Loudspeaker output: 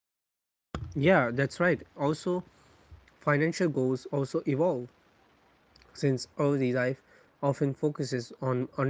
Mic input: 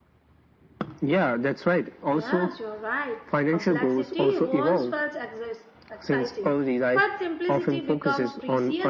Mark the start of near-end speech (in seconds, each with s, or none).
2.0 s